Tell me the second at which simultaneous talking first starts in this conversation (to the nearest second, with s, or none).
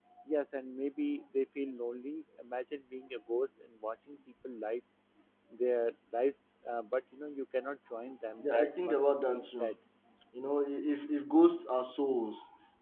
8 s